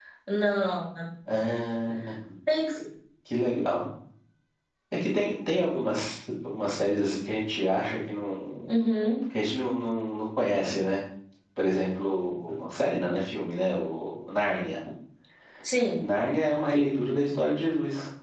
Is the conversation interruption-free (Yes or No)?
Yes